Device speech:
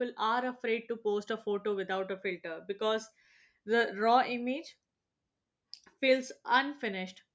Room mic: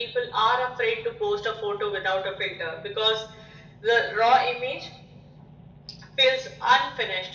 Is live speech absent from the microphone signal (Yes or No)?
Yes